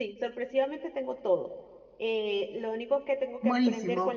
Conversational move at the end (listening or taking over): listening